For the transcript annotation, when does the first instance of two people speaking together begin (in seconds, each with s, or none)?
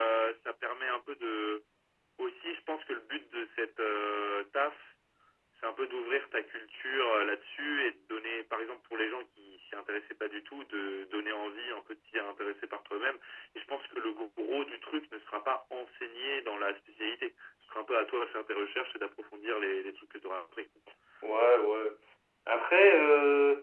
none